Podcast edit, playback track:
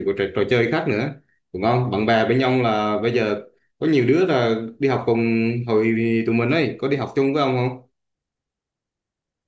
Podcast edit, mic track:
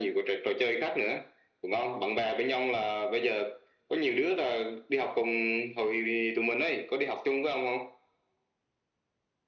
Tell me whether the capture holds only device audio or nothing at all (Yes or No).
Yes